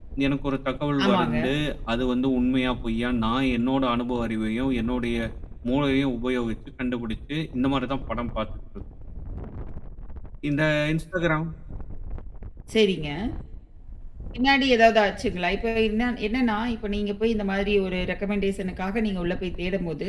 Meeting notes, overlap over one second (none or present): none